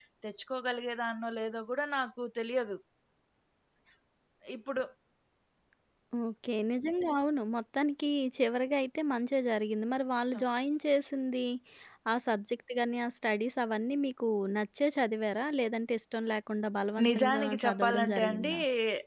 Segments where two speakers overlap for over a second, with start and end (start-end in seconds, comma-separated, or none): 17.1-18.5